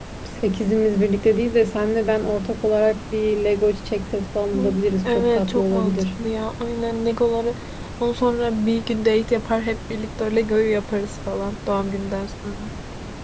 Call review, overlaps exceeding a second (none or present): present